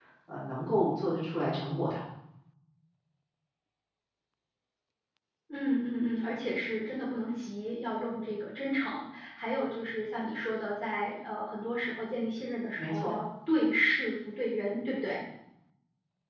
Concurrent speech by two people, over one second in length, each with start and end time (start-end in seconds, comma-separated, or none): none